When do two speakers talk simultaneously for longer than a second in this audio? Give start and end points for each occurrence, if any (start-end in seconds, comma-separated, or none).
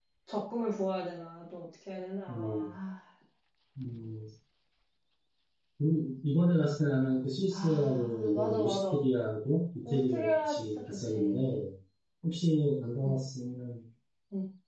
7.5-9.0, 9.8-11.4